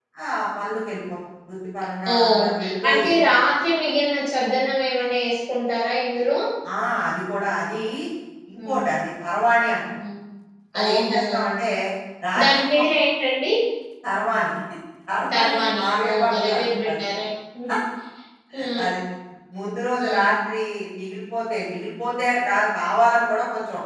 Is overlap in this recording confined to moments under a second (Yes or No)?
No